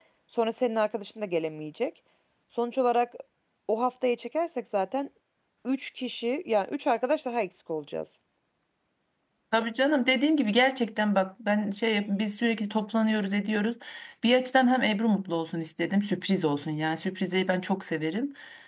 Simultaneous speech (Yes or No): No